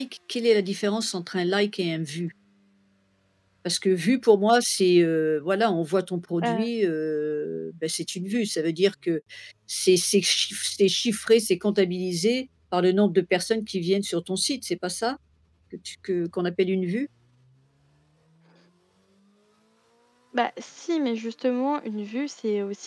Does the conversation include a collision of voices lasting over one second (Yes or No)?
No